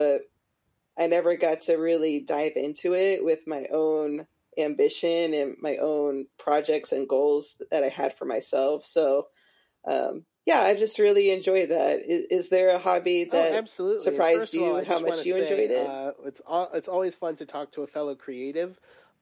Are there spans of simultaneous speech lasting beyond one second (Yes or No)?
Yes